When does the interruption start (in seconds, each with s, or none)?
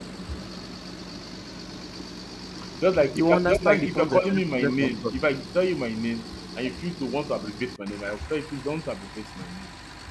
3.1 s